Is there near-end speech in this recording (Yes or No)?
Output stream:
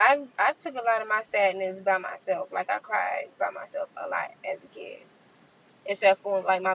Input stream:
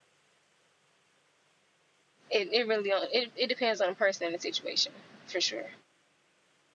Yes